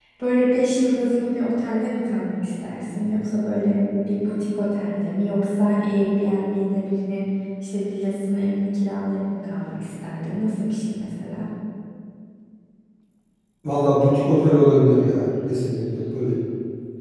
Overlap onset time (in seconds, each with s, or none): none